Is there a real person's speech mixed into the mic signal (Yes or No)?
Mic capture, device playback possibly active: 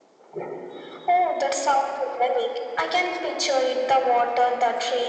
No